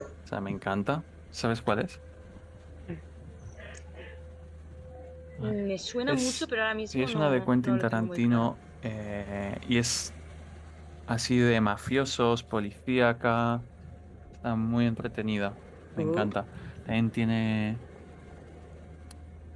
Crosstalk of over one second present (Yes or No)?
Yes